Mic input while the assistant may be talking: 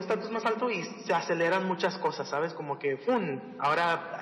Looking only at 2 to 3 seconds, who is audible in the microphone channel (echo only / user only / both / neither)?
echo only